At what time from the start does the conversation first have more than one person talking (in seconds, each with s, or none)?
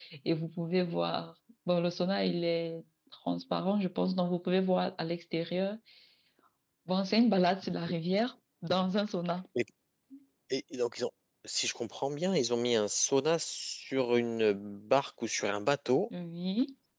none